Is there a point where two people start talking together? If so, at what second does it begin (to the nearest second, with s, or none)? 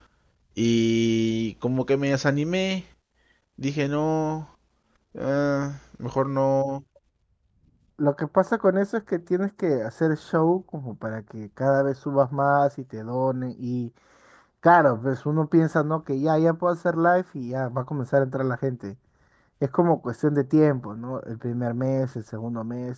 none